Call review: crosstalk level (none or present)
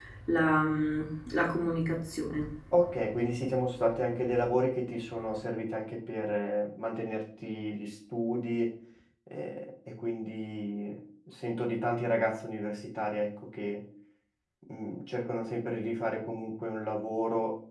none